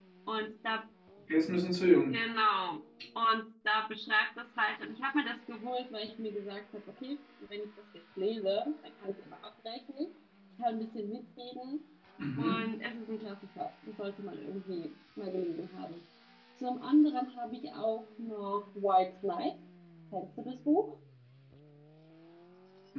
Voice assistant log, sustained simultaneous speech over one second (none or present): none